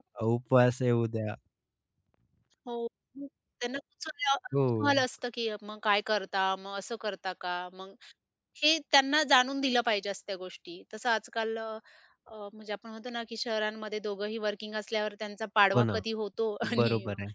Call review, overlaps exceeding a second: none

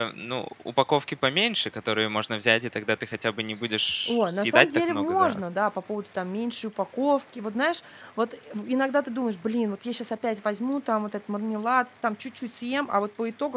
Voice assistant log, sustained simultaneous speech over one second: present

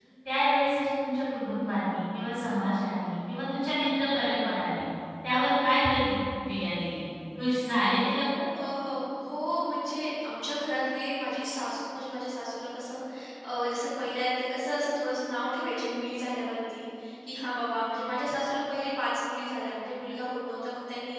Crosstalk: none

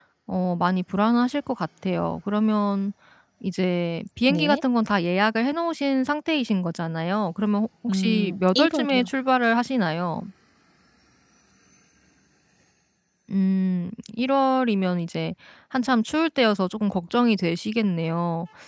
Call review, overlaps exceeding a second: present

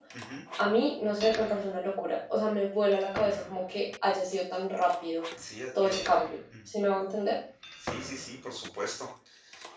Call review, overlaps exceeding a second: none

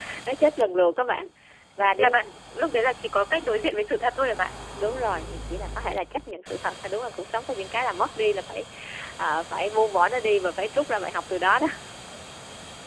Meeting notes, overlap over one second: none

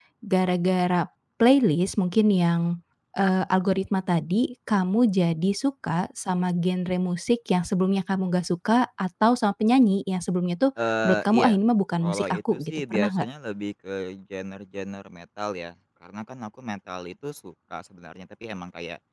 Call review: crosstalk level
present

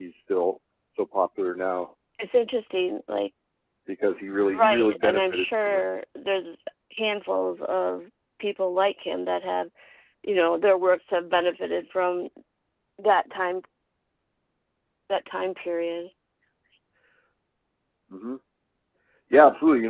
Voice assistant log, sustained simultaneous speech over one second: present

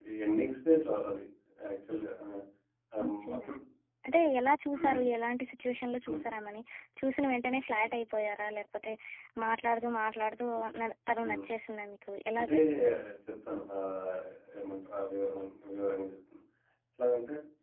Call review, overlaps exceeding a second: none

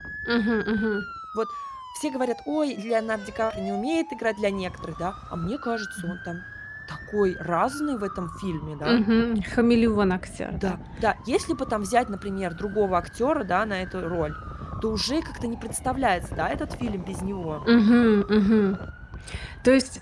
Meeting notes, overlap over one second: none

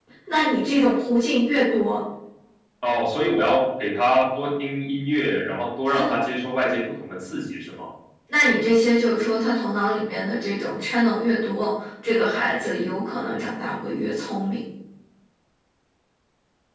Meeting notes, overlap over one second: none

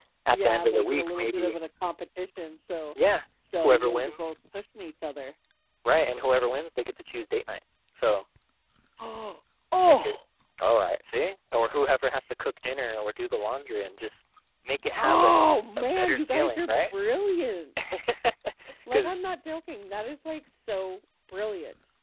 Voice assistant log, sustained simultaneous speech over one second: present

